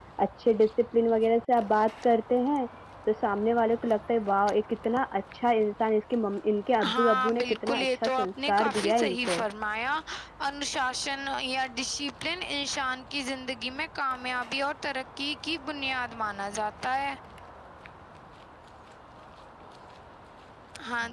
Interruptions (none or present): present